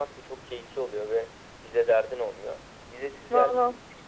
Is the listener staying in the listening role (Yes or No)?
Yes